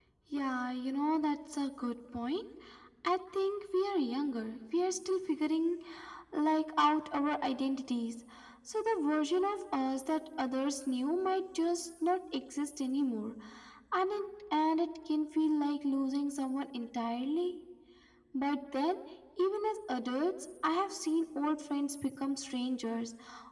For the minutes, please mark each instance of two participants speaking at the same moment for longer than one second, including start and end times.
none

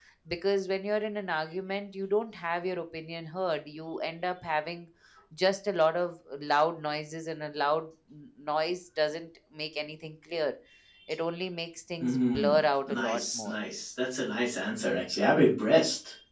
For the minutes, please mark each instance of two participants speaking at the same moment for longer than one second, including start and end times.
12.0-13.6

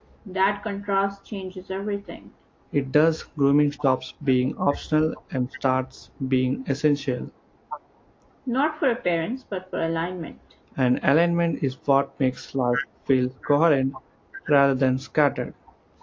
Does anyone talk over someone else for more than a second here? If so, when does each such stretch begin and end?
none

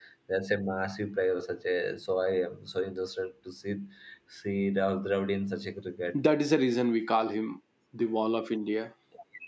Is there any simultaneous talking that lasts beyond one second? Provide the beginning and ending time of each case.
none

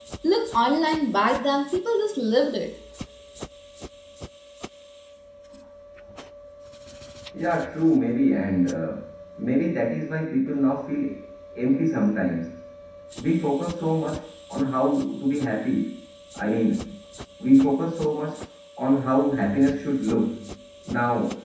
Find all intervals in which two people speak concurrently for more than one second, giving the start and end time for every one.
none

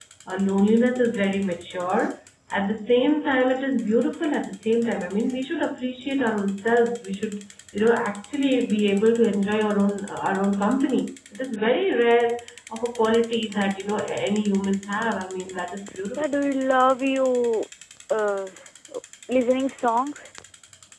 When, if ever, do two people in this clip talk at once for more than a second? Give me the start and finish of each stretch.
none

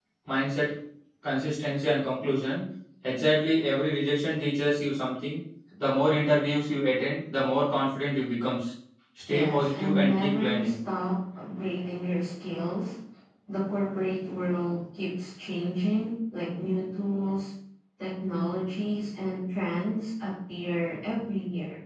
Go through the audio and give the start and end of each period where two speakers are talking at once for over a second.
9.3-10.8

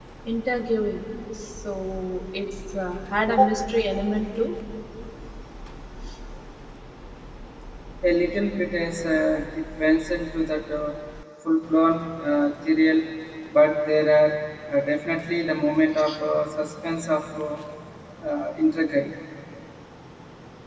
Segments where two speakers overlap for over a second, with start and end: none

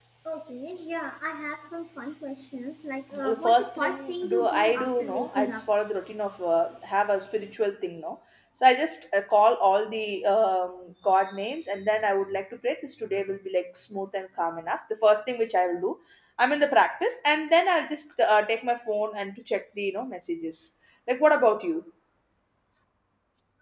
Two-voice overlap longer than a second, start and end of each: 3.2-5.6

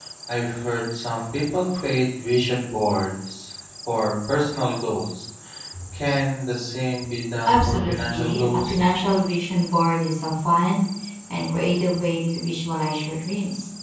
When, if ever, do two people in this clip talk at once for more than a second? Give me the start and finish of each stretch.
7.4-8.8

